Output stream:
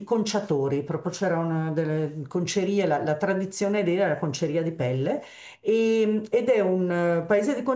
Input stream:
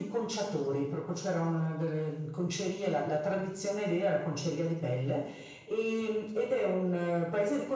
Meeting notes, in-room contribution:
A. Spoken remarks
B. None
B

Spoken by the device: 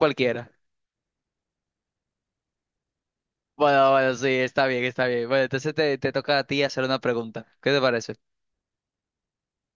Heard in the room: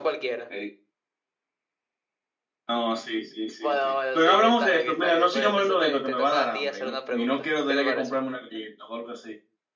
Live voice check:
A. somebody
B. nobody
A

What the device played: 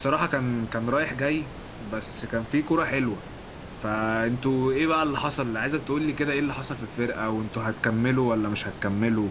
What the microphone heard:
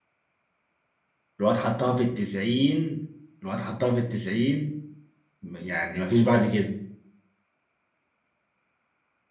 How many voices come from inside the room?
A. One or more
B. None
A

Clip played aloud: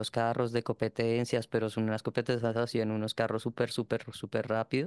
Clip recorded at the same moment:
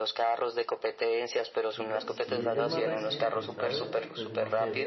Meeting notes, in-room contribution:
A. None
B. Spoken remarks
B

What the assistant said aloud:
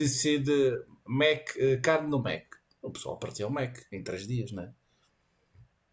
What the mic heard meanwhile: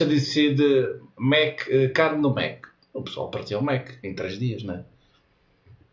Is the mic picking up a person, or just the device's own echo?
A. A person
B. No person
B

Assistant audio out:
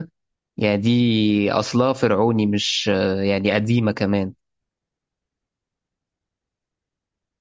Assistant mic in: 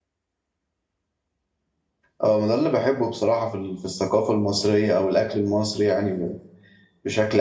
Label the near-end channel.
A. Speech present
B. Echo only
A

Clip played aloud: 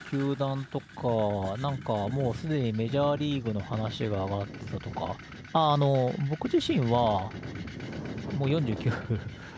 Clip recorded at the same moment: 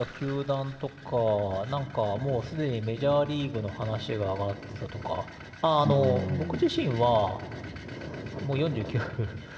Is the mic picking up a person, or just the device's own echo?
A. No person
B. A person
B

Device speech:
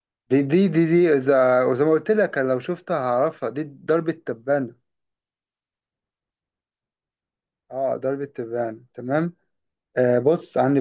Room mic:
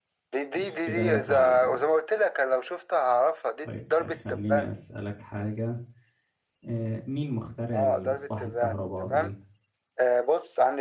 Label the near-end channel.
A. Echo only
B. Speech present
B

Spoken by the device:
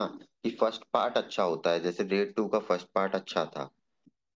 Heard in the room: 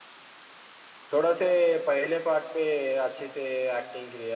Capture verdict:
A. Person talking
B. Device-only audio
A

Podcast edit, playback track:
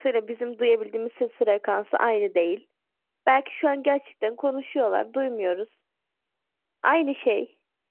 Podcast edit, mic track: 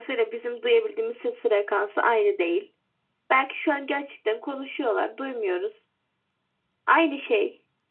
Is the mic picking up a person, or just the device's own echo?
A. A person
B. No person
B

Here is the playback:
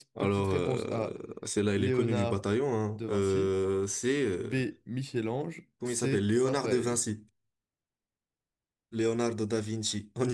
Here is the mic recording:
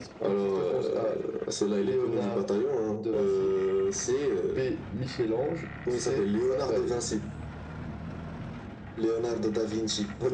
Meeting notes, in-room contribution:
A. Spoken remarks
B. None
B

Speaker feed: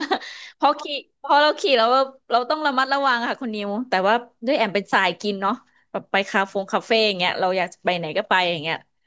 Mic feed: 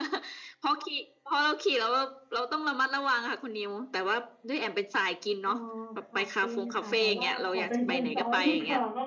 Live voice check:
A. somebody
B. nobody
A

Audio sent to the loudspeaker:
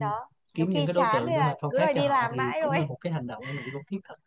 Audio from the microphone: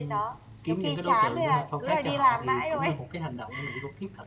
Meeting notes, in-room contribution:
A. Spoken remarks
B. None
B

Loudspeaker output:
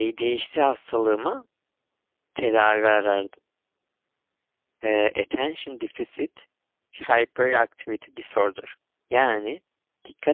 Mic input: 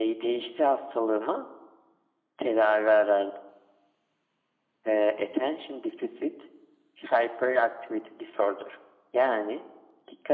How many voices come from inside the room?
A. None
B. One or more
A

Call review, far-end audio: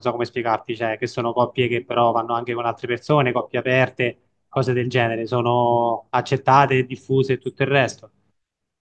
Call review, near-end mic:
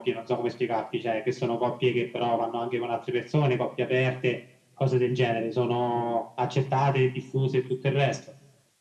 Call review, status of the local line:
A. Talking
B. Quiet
B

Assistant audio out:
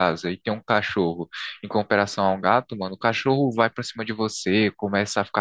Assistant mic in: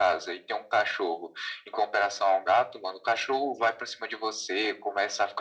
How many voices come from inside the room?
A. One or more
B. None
B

